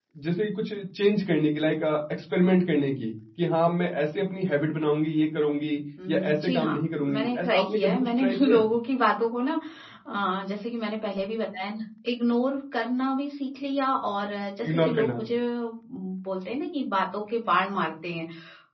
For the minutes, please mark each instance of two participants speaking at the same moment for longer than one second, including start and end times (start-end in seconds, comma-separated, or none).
6.1-8.7